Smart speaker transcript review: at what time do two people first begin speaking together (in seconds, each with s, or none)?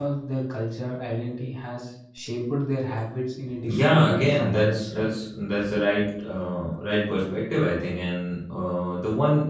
3.7 s